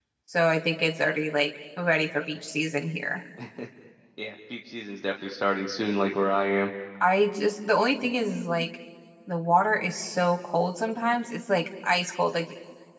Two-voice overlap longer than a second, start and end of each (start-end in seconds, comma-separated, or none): none